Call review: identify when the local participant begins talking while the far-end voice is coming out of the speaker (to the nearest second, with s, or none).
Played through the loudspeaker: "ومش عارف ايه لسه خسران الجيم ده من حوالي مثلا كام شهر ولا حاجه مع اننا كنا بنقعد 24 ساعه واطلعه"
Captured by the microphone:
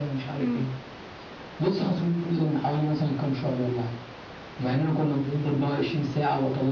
0 s